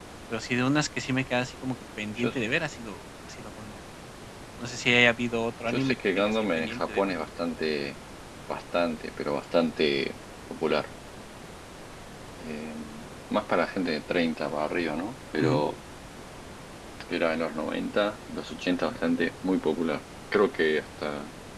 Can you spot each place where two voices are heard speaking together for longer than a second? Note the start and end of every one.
5.7-7.1

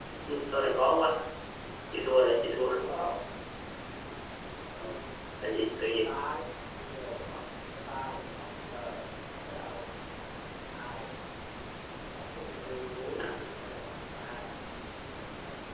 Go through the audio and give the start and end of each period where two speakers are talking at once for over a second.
none

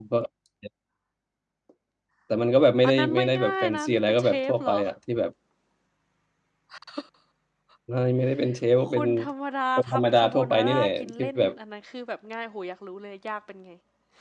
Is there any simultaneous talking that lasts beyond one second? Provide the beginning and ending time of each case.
2.8-4.8, 9.8-11.5

